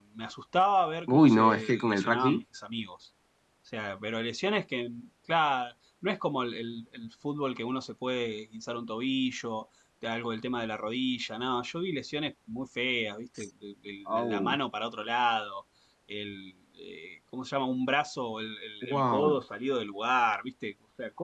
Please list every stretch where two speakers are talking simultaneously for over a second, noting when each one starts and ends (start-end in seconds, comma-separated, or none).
1.1-2.4